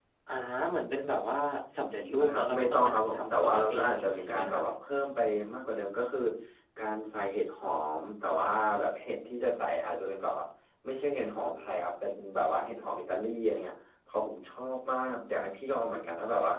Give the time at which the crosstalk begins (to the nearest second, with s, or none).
2 s